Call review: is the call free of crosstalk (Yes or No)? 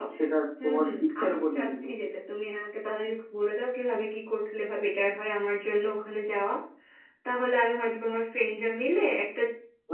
No